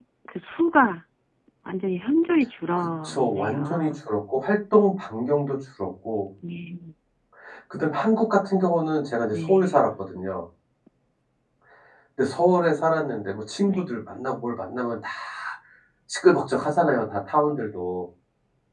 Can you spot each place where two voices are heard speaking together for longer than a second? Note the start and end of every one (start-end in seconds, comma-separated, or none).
2.8-4.0